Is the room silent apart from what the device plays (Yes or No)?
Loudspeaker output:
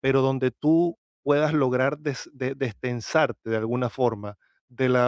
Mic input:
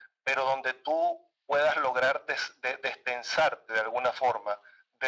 Yes